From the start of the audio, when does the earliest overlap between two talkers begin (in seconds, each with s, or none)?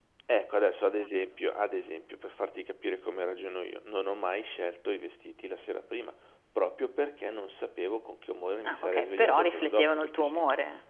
8.6 s